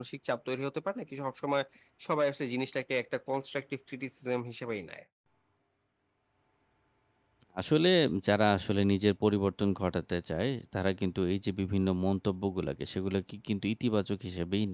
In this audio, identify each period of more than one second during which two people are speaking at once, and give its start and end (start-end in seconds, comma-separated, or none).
none